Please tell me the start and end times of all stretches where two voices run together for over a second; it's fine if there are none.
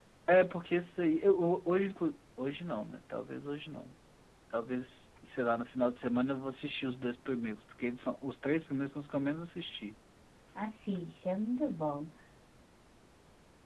none

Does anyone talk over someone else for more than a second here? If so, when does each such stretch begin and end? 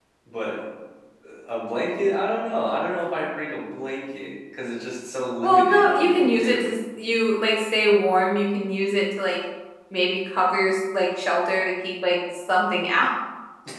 5.4-6.7

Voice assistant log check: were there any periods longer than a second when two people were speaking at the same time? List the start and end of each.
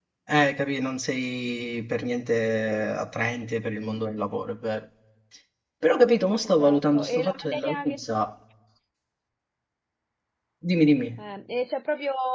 6.4-8.0

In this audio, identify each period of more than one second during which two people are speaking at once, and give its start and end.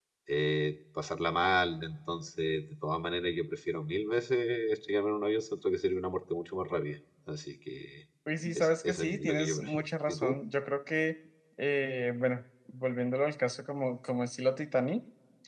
8.5-10.4

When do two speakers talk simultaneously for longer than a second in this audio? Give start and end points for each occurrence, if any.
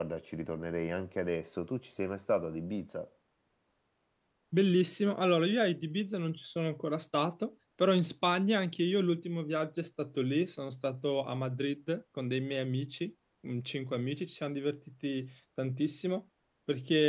none

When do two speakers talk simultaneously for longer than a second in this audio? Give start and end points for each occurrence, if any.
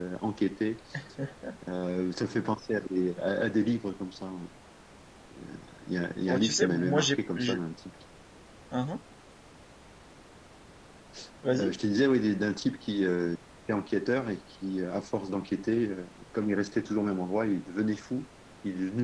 6.3-7.6

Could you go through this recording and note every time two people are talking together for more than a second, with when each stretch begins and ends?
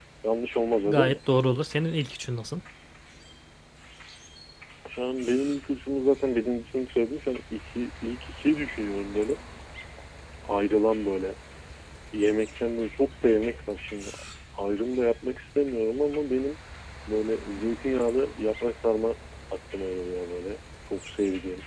none

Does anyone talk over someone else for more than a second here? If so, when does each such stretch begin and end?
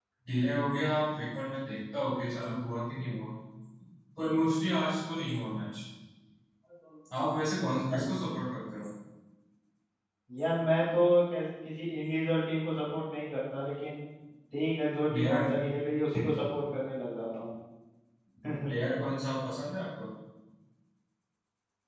none

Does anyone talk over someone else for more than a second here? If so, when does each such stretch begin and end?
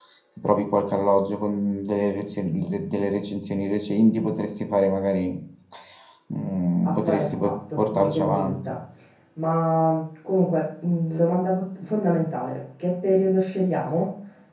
6.9-8.6

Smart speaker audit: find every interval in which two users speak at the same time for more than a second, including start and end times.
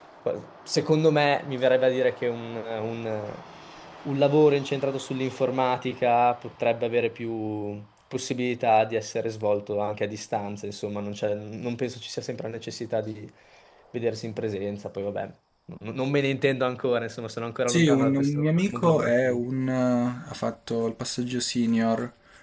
17.7-19.4

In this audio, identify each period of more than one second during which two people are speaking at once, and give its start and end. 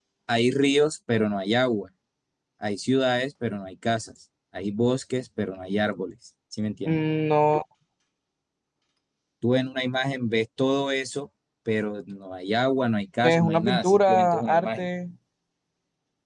13.2-14.9

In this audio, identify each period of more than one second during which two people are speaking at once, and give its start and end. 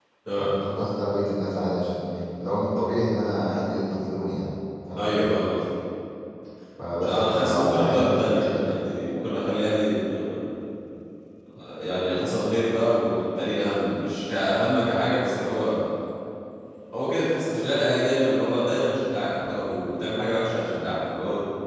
7.0-8.7

